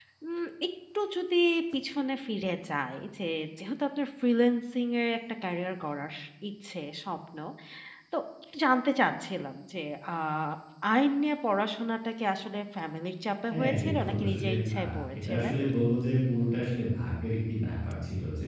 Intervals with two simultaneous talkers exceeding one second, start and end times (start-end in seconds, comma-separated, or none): 13.5-15.5